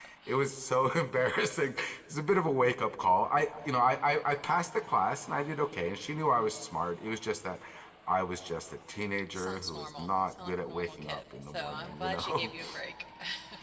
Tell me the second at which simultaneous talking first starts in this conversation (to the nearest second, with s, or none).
9 s